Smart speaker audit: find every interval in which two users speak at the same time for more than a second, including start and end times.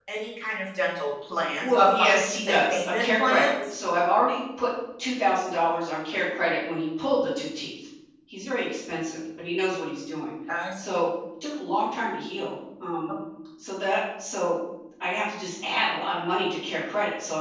1.6-3.5

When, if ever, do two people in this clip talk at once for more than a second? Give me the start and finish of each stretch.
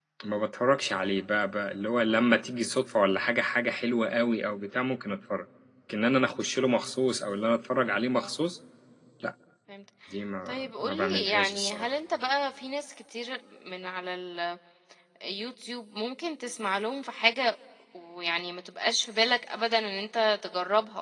10.5-11.9

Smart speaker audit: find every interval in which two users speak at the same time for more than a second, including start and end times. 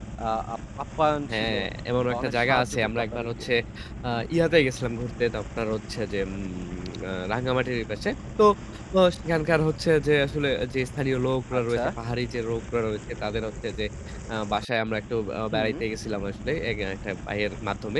2.1-3.4

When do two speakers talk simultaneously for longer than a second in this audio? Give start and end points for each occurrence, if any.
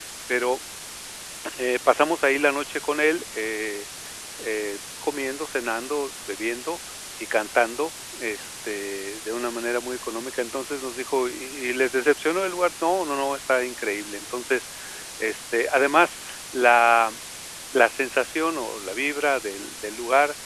none

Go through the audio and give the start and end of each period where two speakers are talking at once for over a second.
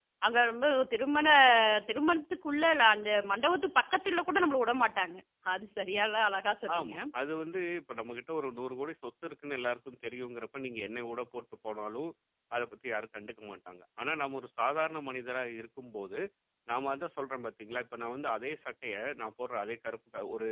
none

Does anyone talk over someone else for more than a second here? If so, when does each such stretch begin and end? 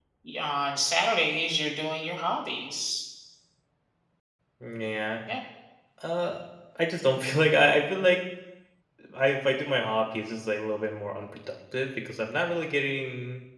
none

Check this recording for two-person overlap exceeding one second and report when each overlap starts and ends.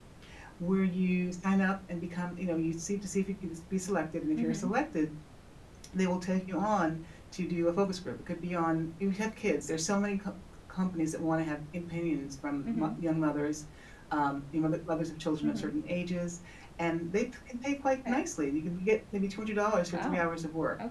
none

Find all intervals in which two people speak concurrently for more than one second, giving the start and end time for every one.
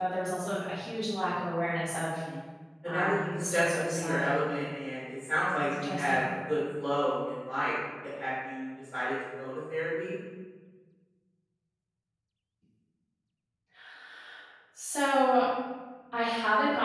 2.9-4.2

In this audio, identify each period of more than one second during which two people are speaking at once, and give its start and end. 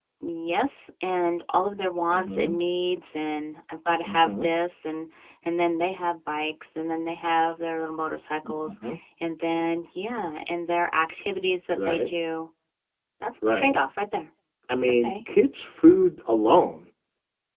none

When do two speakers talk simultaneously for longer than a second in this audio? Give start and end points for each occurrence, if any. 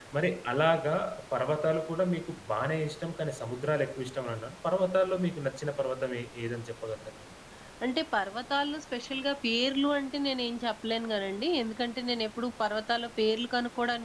none

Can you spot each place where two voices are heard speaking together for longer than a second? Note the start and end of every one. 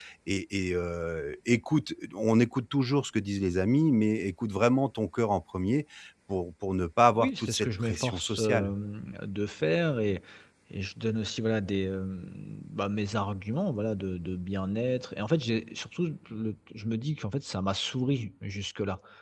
7.1-8.7

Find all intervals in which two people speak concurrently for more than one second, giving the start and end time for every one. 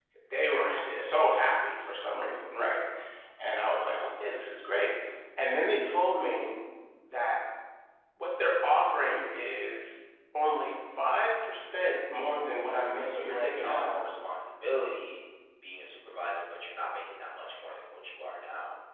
12.4-14.0

